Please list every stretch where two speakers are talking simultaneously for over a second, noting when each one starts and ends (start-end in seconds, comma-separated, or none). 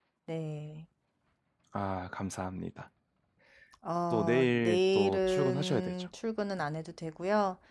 4.1-6.1